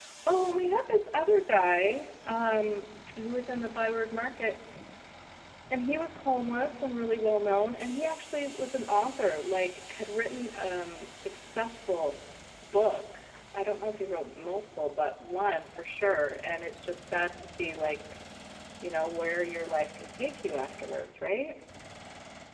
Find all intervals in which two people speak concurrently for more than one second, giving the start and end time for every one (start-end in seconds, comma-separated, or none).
none